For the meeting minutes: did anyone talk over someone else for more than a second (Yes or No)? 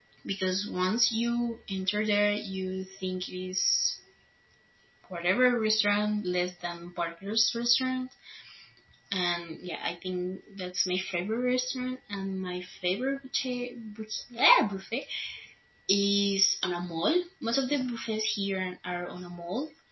No